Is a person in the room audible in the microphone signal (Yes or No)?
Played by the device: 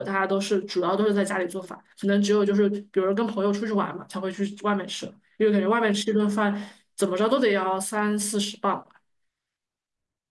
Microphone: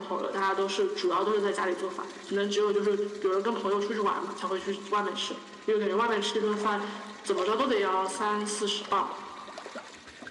No